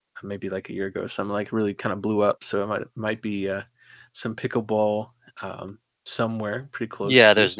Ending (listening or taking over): taking over